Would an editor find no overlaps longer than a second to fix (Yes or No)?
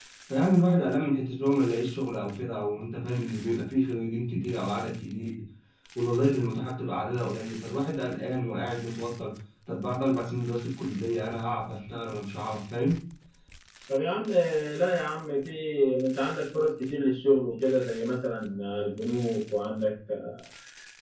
Yes